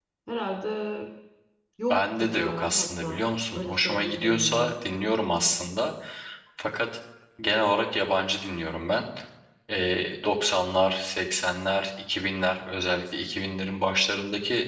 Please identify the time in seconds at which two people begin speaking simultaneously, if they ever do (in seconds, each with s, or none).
1.9 s